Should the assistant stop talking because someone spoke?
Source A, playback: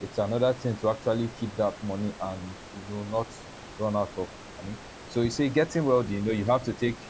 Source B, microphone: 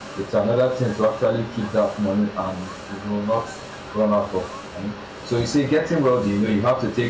No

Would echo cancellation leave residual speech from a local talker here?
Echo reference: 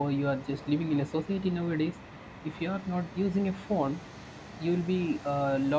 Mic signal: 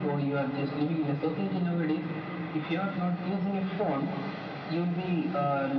No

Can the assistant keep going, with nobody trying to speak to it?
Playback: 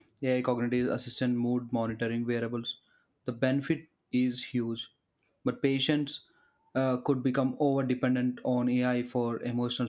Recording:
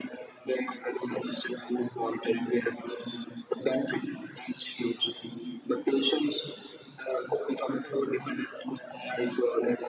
Yes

